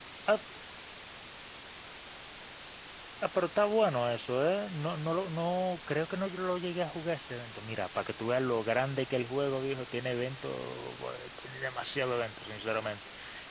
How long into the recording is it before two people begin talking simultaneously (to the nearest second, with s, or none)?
none